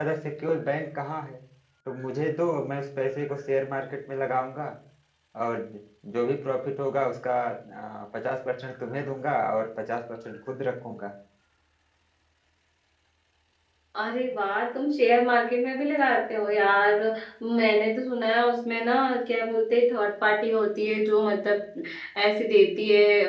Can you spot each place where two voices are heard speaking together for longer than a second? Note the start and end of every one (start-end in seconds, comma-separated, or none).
none